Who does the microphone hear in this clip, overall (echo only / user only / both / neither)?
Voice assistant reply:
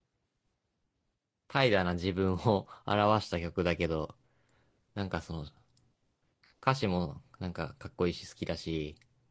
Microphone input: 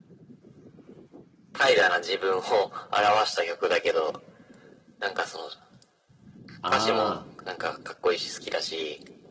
both